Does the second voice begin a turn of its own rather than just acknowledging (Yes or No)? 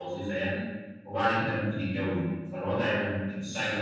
No